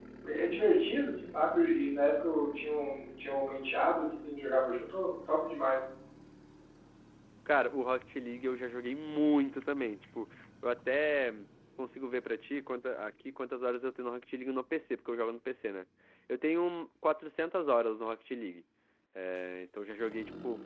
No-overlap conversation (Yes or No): Yes